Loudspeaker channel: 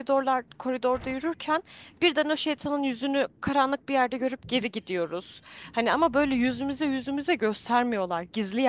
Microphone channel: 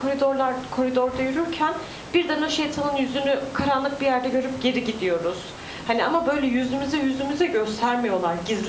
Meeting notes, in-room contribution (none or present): none